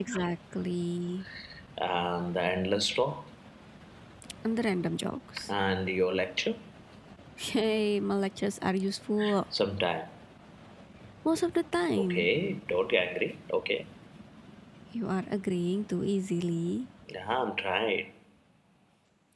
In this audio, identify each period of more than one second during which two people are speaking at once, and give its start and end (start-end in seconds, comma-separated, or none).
none